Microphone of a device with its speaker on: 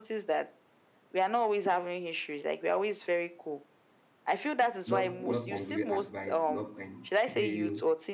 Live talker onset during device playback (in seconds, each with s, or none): 4.9 s